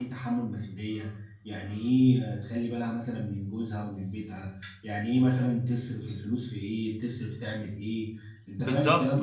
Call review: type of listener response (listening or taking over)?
taking over